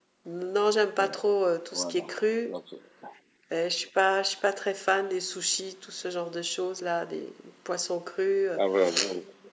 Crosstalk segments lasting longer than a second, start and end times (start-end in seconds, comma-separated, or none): none